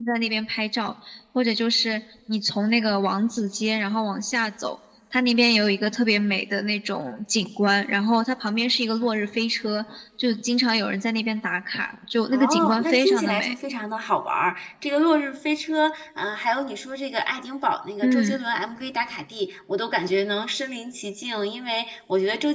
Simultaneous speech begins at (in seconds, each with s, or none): 12.3 s